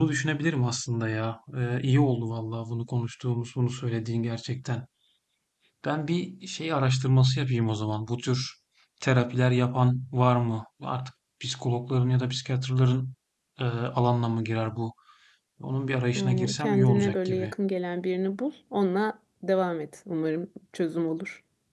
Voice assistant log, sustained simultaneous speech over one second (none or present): present